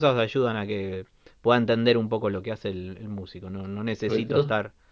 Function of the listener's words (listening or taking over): listening